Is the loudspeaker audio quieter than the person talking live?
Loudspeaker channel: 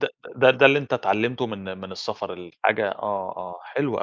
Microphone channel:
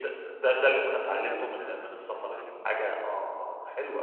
No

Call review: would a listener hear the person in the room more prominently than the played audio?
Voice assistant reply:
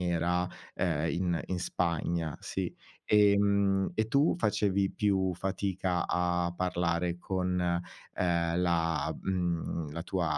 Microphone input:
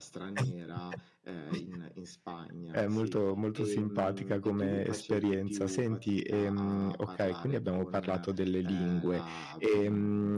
Yes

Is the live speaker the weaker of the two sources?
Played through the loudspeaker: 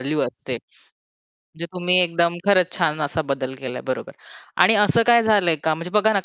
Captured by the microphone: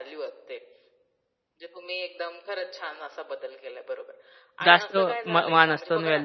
No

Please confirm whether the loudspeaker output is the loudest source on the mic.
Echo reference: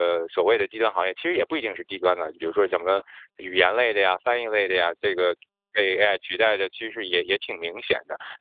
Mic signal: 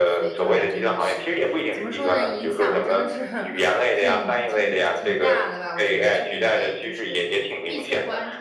Yes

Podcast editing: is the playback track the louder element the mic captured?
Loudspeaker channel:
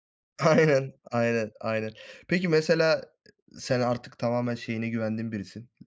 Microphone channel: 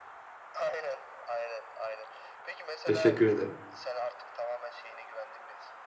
No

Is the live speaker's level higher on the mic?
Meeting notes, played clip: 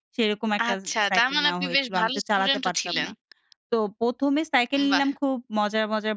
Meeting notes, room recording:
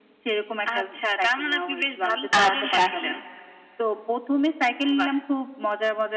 Yes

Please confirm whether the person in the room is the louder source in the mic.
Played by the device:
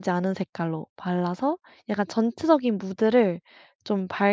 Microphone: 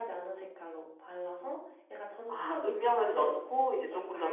Yes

